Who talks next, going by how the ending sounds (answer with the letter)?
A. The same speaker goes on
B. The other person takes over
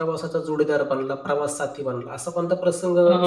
B